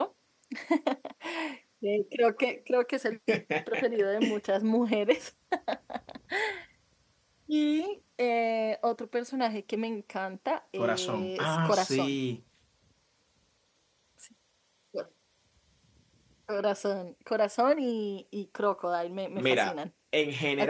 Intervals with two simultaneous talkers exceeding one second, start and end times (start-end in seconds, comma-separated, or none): 10.8-12.2